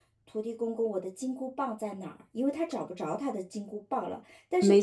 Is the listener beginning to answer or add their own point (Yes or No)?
No